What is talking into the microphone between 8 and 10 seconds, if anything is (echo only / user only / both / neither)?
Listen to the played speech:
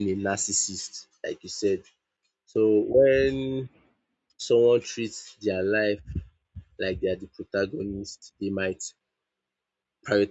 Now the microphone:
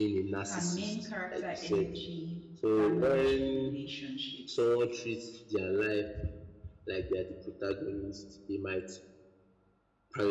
echo only